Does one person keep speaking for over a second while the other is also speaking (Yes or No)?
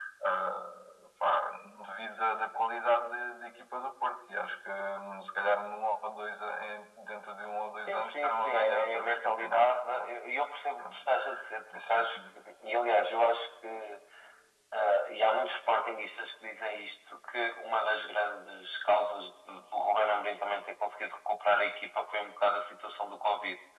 Yes